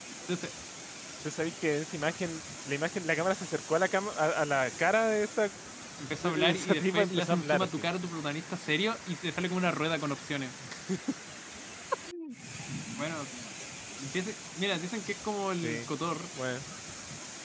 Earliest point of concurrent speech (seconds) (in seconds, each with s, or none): 6.2 s